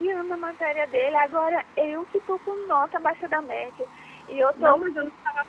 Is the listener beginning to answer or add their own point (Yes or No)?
Yes